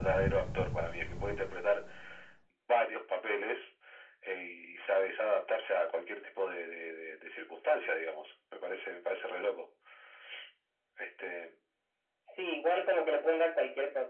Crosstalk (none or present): none